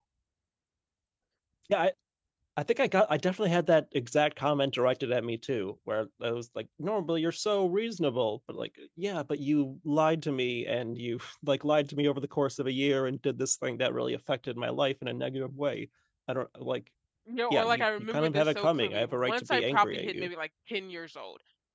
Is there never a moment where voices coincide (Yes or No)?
No